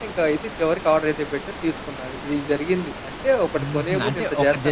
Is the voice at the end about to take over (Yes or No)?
Yes